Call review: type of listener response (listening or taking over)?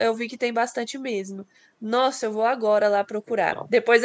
listening